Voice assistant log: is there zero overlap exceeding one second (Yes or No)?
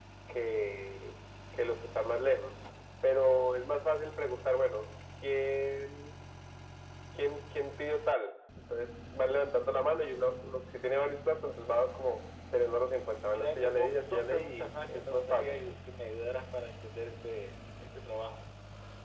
No